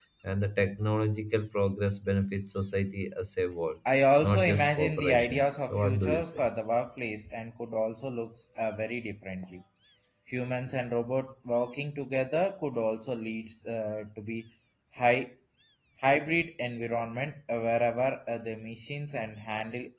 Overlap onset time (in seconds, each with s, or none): 4.2 s